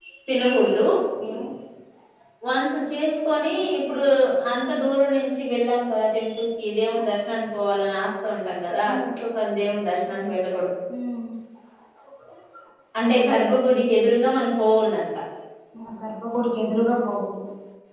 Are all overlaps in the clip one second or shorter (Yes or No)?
Yes